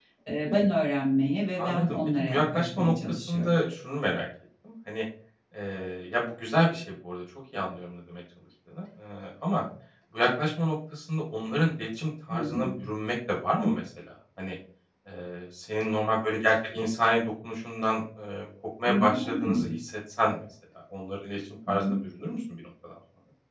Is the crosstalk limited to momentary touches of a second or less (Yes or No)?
No